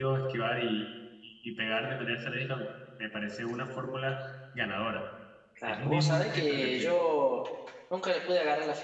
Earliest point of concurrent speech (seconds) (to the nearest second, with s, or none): 6 s